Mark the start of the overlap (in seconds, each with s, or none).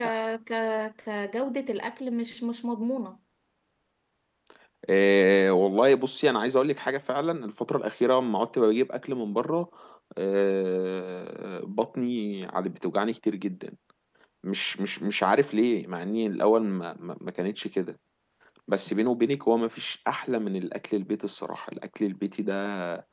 none